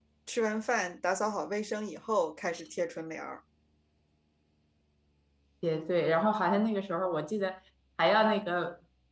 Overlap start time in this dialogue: none

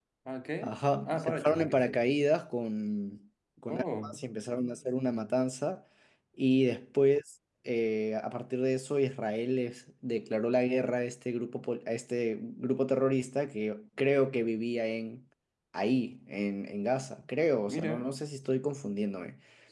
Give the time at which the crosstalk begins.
1 s

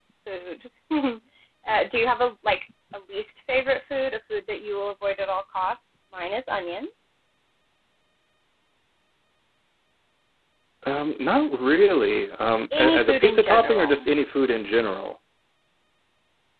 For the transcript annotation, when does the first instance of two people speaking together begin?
13 s

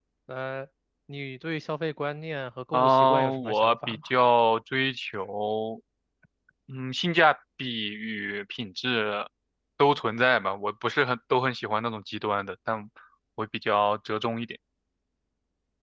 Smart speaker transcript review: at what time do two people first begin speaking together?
3 s

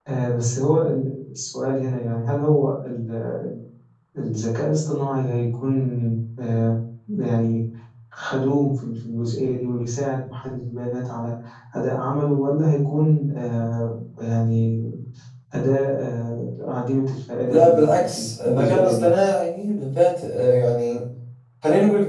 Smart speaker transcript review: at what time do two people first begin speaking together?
17 s

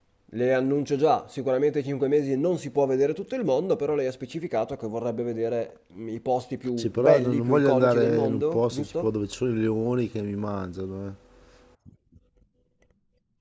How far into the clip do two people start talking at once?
7 s

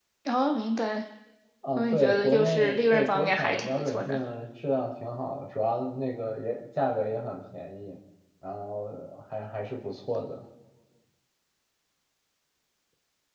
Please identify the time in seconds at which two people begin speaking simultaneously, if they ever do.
2 s

